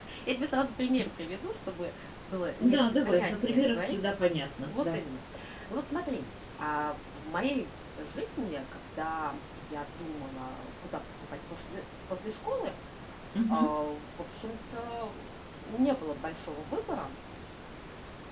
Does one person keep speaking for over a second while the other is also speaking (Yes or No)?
Yes